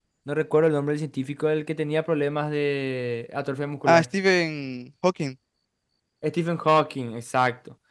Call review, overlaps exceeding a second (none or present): none